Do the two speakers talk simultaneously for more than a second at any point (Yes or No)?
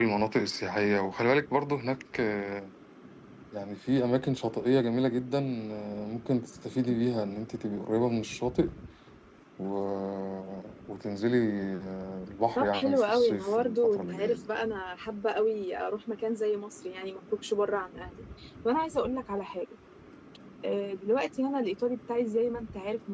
Yes